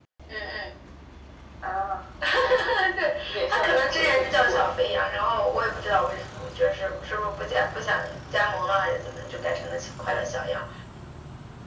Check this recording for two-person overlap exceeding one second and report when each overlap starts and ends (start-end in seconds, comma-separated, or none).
3.3-4.7